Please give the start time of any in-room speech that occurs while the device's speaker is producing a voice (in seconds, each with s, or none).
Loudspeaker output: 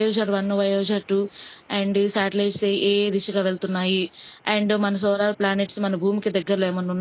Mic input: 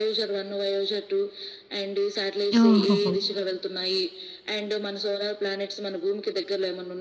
2.6 s